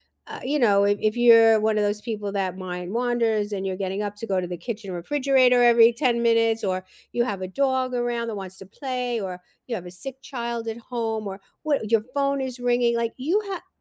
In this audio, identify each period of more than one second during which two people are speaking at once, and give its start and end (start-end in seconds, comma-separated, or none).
none